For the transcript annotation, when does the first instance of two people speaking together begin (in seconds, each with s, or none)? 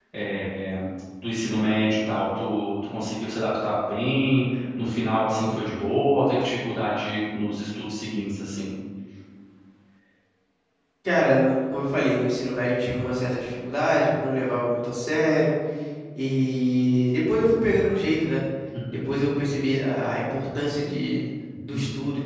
none